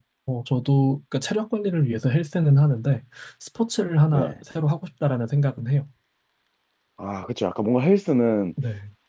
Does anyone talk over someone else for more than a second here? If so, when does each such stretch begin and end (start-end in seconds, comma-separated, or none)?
none